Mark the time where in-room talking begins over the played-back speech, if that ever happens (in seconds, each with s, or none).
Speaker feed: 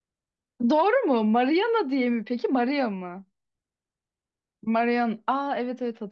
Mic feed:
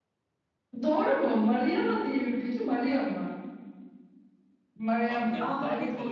5.1 s